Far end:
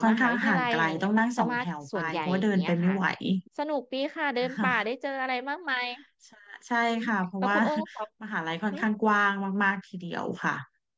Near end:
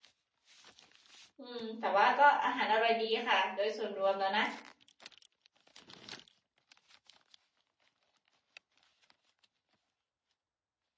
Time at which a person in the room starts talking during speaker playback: 1.4 s

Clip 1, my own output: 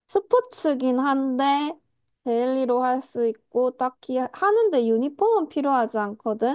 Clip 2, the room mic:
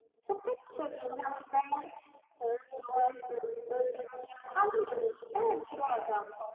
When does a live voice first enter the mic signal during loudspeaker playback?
none

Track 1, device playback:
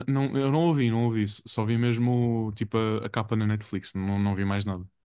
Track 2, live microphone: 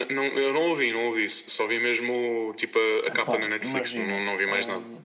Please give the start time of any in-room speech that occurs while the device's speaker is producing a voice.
3.1 s

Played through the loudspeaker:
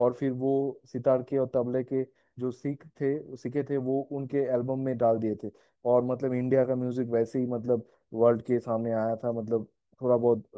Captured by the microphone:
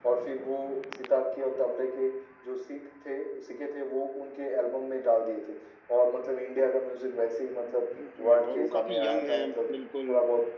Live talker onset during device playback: 8.0 s

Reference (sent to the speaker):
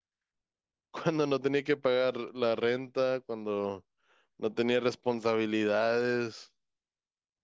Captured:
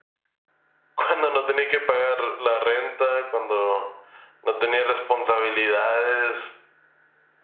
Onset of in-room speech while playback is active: none

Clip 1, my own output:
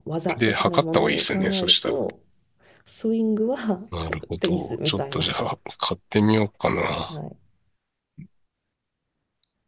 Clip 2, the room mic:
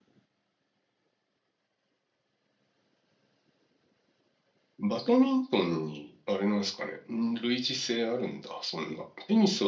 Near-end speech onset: 4.8 s

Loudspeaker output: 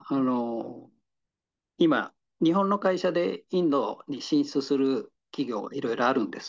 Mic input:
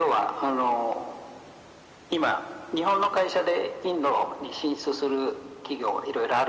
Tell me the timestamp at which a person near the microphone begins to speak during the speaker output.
none

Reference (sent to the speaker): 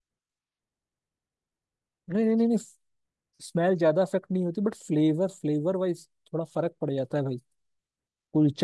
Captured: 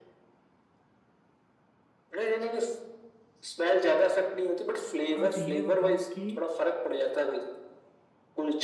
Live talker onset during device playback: 5.2 s

